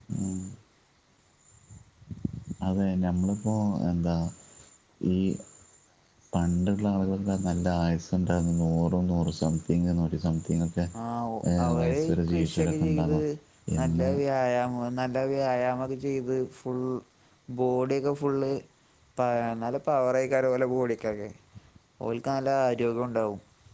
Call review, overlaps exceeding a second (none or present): present